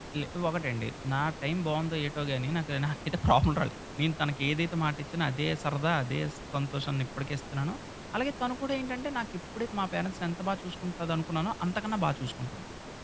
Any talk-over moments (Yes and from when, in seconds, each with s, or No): No